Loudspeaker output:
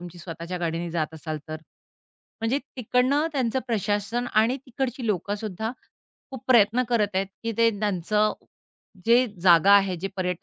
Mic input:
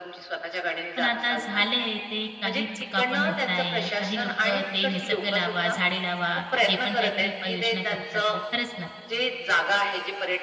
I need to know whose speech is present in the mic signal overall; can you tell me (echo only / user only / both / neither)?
both